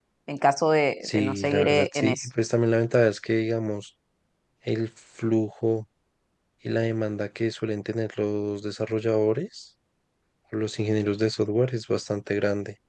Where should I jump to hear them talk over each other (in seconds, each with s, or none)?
1.0 s